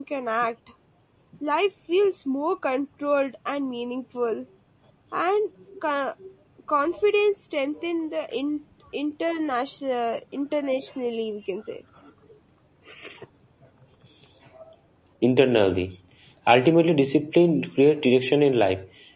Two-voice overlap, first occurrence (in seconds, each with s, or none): none